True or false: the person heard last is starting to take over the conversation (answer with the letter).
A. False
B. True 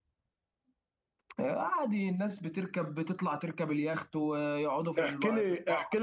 B